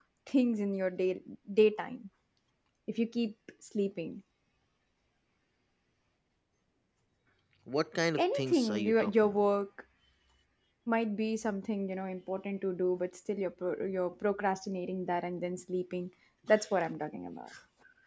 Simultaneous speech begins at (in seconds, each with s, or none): 8.2 s